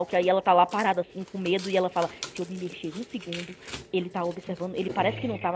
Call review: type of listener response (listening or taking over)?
listening